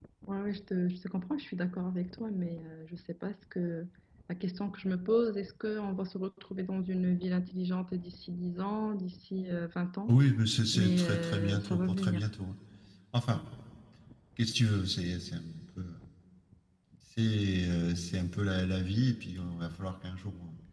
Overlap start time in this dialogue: 10.7 s

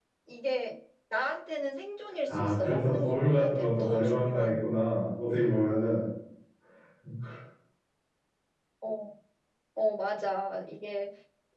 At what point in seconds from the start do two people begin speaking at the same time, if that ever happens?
2.3 s

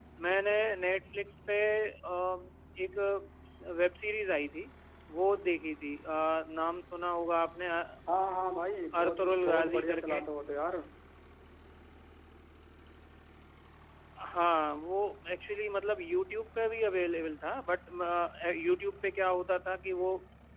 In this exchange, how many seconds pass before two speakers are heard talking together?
9.0 s

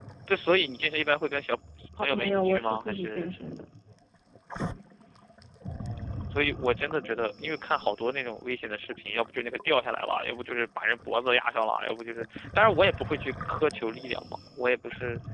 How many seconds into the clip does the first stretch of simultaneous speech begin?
2.0 s

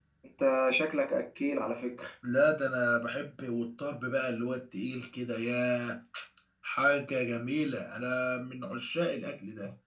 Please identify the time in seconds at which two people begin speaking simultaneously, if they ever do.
none

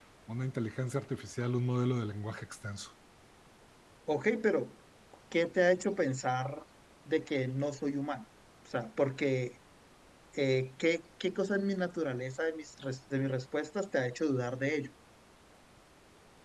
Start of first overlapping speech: none

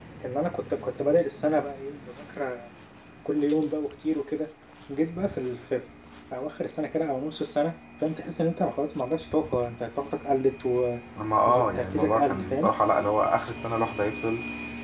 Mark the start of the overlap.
11.4 s

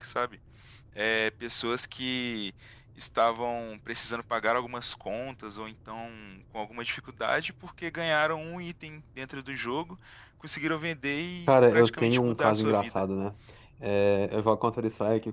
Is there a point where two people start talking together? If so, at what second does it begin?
11.5 s

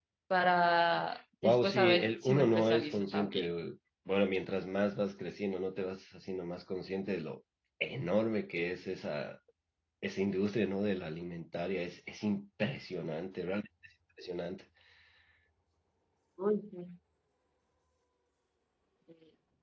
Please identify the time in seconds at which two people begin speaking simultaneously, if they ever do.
1.4 s

